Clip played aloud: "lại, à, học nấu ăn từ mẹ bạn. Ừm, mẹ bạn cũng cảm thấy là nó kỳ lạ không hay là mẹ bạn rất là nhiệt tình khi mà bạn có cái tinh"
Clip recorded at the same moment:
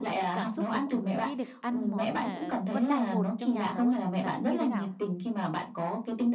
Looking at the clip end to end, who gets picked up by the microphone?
both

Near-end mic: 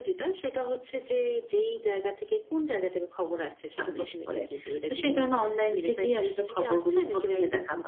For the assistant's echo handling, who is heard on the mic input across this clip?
both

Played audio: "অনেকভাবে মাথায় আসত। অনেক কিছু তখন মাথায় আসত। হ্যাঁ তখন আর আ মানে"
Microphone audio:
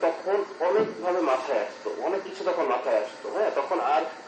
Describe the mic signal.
echo only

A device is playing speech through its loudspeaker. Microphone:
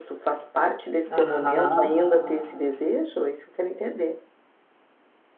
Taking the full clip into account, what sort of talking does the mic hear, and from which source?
both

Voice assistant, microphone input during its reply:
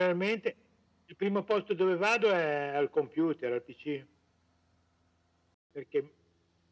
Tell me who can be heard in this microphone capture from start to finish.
echo only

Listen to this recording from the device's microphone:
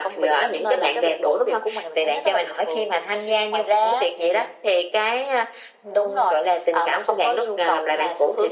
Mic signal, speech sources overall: echo only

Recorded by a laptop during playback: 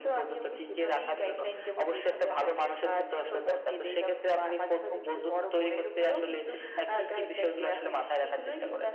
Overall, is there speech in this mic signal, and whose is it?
echo only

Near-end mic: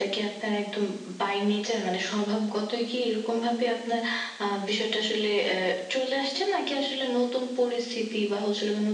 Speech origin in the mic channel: echo only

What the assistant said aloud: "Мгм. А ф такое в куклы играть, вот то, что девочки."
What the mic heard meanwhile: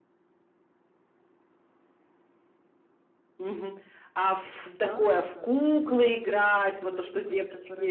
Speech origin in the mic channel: both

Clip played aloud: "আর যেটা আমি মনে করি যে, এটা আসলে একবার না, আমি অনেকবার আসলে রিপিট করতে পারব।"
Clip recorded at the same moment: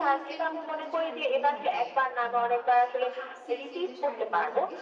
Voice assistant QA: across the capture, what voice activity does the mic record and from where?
both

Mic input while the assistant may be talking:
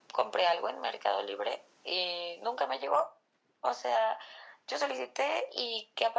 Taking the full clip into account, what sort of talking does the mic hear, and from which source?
echo only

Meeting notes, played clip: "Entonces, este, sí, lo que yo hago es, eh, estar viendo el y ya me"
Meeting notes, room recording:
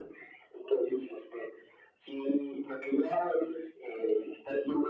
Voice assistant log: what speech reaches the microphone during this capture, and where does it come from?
echo only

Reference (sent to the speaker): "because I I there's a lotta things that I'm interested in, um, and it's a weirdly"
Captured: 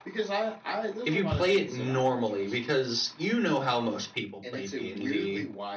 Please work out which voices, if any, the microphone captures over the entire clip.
both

